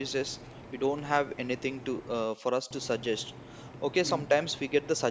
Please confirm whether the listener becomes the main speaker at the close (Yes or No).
No